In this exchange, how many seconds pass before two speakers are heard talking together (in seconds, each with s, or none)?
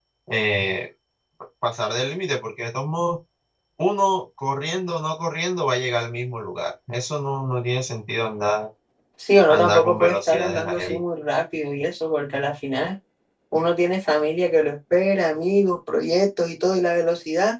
9.5 s